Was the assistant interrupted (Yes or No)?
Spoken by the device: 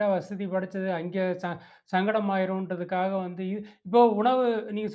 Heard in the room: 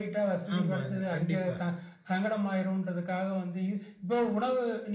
Yes